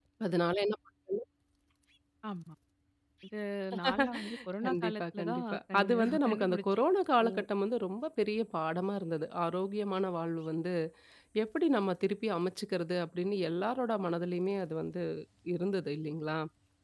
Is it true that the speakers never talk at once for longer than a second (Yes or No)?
No